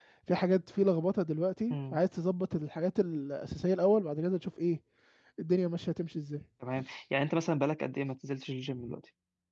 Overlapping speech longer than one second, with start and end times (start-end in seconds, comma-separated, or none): none